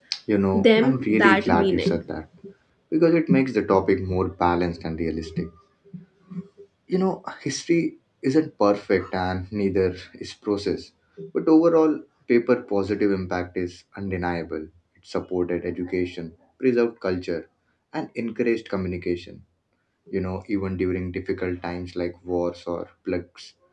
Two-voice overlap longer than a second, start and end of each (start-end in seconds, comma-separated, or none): 0.5-2.0